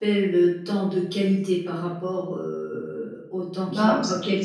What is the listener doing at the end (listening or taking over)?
taking over